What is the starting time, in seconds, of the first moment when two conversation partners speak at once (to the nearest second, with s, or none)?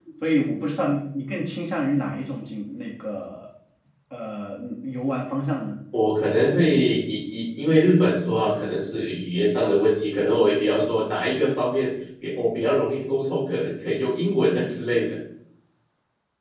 none